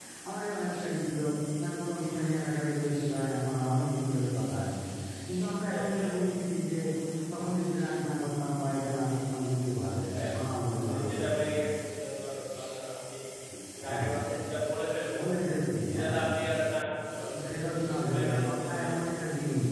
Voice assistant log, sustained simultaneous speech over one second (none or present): present